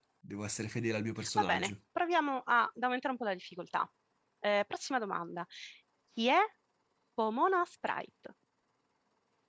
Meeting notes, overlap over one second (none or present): none